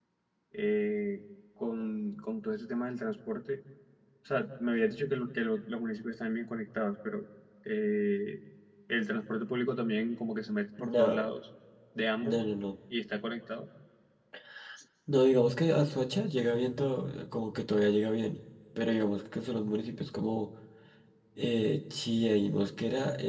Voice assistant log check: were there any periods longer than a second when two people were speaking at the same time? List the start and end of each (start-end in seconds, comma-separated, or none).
none